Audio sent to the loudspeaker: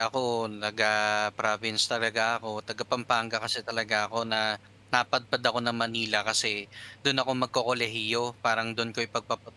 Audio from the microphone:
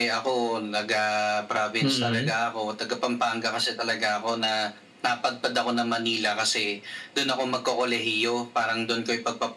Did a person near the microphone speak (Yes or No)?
Yes